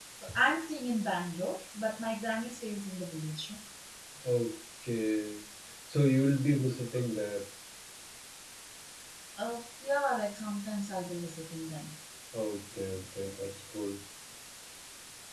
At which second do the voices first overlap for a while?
none

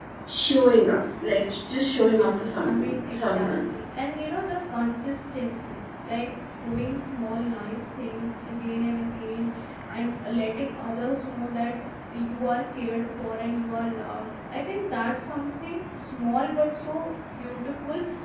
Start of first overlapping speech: 2.0 s

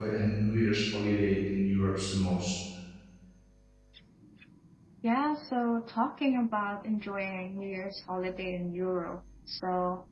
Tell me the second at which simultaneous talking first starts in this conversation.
none

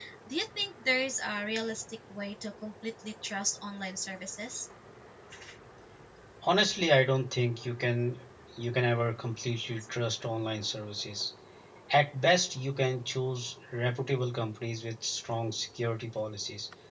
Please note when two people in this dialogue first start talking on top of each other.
none

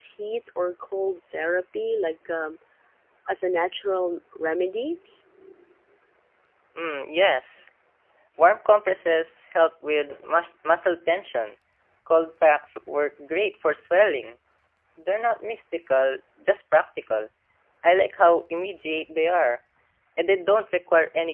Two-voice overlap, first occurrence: none

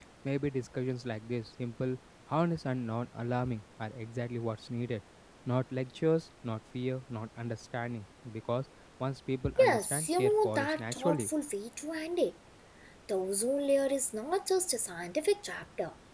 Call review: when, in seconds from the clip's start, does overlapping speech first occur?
9.6 s

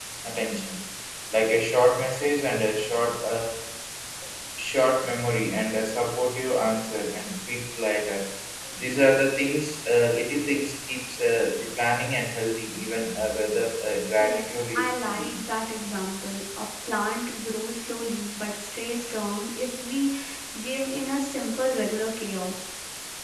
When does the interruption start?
14.2 s

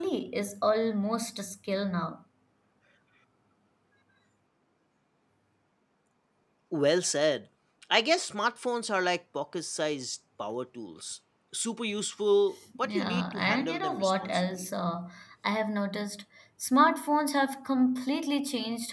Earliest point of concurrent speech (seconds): 12.8 s

